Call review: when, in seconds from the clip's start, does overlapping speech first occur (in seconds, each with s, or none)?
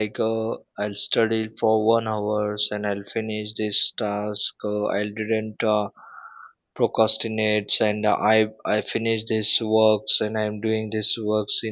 none